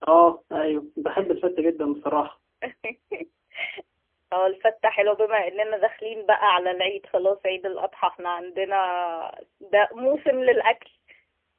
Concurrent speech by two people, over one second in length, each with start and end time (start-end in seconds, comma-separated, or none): none